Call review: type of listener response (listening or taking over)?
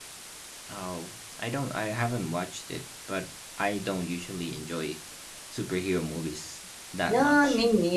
taking over